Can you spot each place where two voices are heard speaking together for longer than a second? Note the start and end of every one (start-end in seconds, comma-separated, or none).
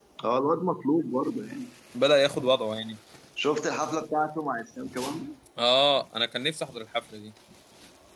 none